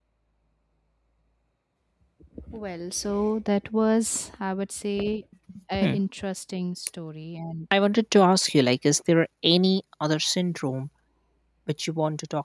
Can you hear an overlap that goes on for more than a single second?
No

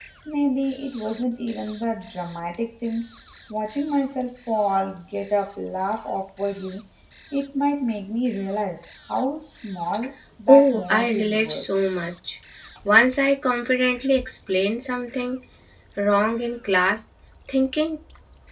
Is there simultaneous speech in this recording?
Yes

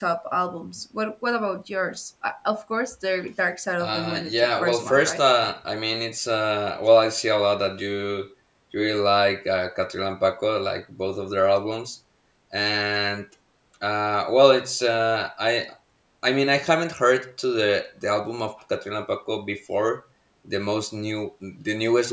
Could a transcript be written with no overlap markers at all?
No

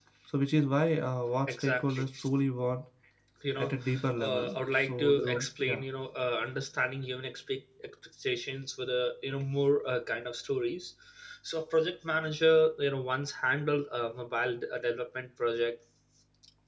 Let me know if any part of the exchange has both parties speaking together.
Yes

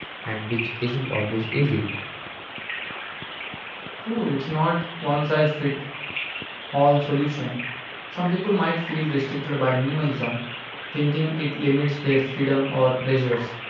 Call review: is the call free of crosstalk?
Yes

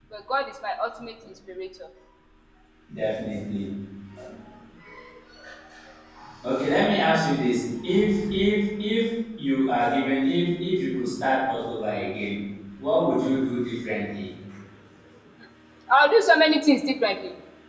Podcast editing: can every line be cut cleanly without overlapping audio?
Yes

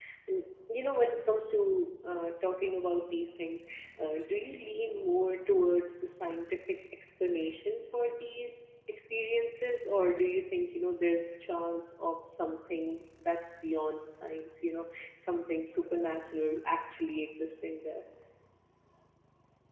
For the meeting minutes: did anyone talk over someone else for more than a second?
No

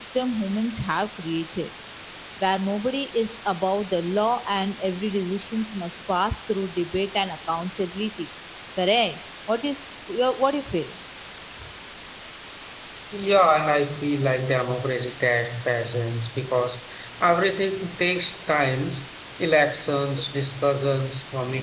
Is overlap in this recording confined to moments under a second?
Yes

